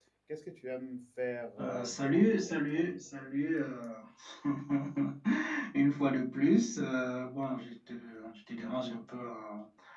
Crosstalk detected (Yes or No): Yes